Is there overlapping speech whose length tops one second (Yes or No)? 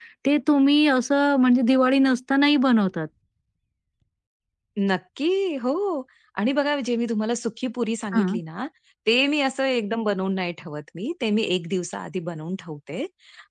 No